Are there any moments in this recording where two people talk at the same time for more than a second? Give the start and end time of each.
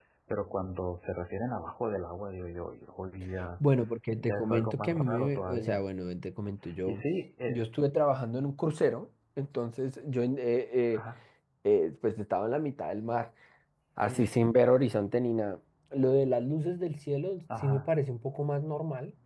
4.2-5.8

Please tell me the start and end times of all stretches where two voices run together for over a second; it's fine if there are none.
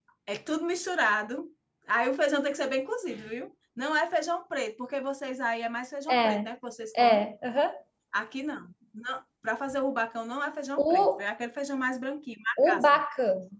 none

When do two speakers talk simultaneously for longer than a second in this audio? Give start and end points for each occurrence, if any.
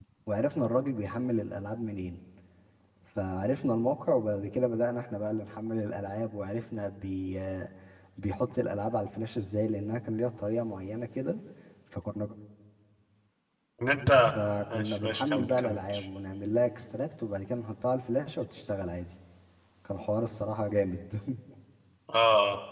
14.7-16.0

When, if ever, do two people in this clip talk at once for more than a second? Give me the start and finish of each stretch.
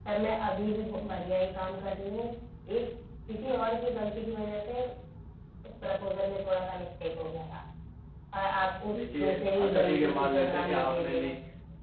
8.9-11.3

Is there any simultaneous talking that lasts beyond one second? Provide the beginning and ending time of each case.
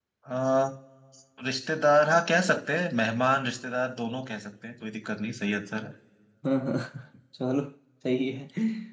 none

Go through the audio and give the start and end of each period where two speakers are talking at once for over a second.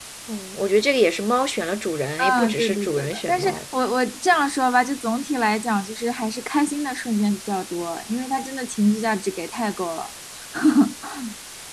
2.2-3.6

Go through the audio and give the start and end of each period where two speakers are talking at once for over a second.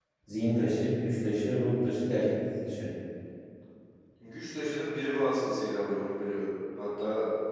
none

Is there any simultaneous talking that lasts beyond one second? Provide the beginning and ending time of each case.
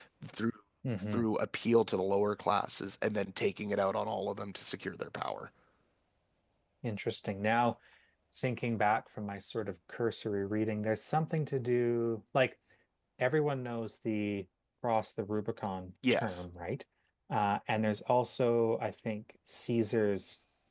none

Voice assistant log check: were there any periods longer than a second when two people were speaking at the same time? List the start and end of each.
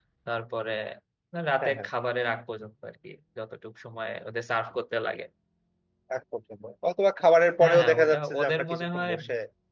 7.6-9.1

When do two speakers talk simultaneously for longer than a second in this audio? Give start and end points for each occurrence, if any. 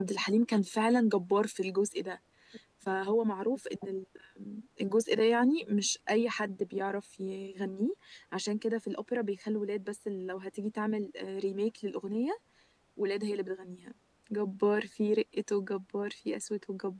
none

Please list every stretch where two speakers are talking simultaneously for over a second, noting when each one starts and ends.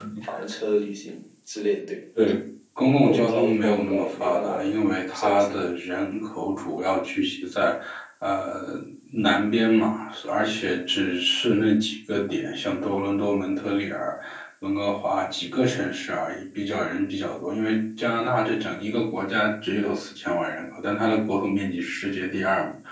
2.8-4.7

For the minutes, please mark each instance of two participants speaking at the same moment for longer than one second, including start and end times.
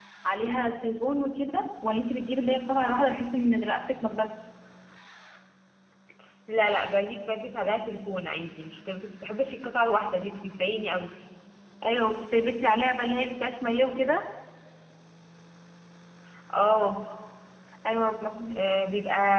none

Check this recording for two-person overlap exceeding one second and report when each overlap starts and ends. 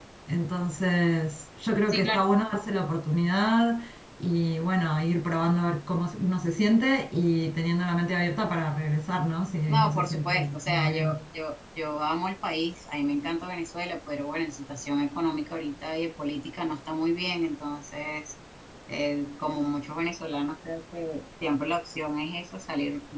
9.7-11.2

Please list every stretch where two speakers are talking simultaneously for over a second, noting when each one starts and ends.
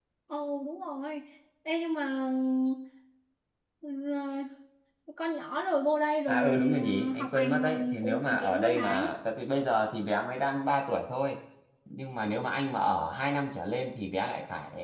6.3-9.1

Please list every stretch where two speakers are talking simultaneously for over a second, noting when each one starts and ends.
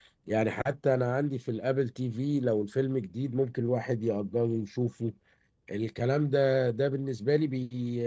none

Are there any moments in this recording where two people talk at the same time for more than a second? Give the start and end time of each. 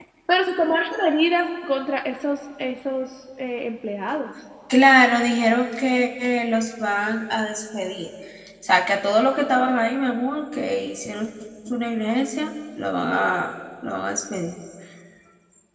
none

